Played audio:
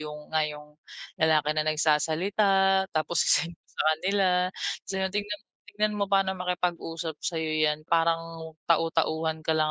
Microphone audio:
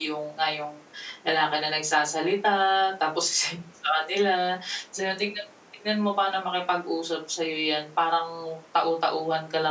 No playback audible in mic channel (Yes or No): No